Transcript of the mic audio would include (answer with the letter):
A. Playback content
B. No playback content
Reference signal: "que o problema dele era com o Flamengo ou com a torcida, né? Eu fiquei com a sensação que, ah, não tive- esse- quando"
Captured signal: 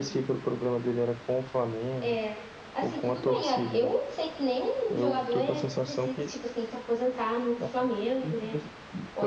A